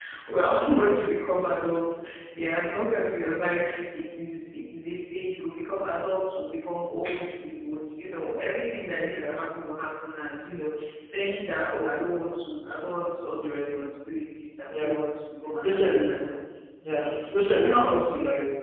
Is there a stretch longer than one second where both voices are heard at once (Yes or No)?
Yes